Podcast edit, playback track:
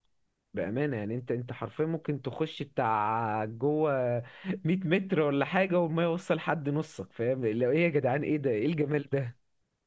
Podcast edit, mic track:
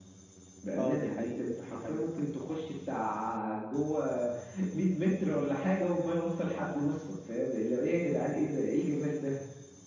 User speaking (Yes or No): Yes